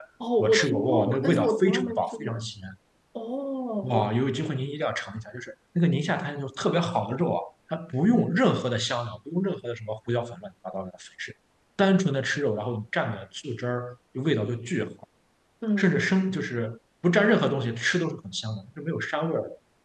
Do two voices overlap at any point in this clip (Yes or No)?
Yes